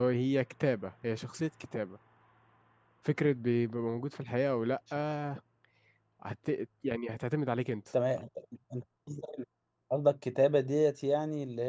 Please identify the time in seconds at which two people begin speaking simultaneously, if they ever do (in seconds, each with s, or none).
none